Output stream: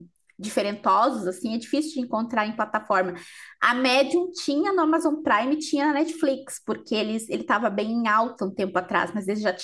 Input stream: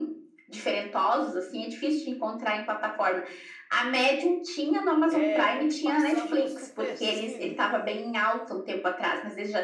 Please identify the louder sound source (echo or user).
echo